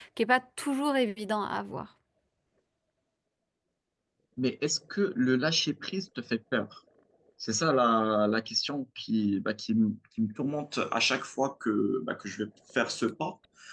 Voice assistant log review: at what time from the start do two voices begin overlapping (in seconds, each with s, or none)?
none